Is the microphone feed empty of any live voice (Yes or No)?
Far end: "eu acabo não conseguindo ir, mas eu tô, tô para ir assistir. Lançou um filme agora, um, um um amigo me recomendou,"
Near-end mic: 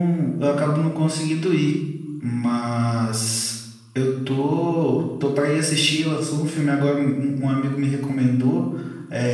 Yes